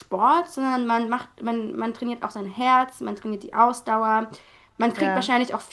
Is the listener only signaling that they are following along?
Yes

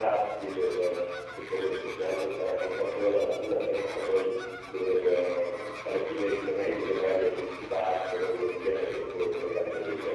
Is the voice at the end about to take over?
Yes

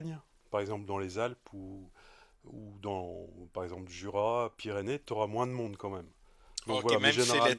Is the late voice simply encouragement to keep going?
No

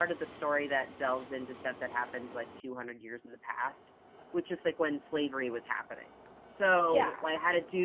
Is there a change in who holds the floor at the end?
No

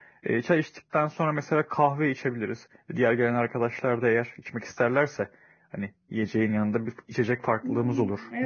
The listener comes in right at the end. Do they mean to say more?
Yes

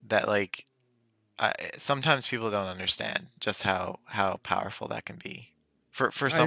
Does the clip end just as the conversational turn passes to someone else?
No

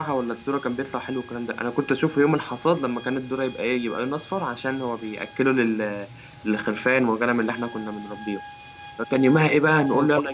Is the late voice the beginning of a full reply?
No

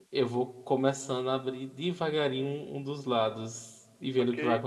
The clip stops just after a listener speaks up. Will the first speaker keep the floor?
No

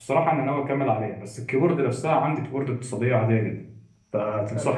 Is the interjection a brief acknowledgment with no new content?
Yes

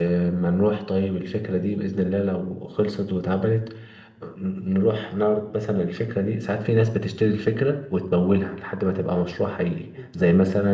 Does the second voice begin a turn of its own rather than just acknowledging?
No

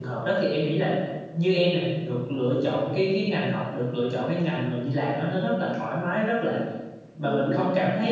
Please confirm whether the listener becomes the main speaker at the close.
No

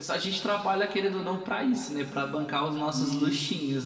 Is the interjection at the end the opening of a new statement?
Yes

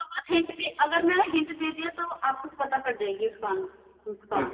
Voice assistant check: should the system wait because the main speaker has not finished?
No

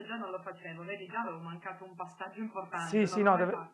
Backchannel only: No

